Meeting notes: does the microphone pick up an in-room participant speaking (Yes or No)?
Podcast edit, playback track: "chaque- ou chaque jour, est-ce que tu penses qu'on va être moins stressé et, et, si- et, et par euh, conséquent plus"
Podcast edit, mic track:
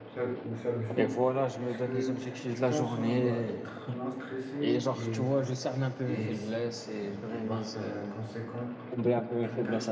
Yes